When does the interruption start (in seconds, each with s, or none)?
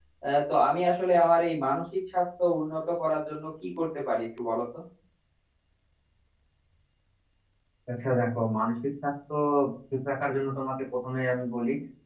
none